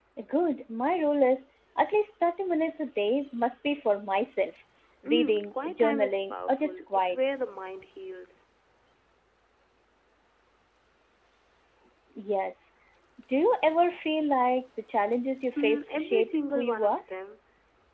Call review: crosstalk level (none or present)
present